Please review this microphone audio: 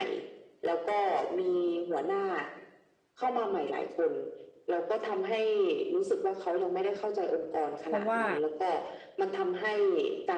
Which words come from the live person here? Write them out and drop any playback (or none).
เพราะว่า